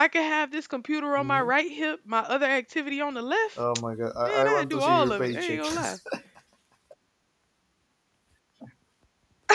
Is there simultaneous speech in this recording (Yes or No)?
Yes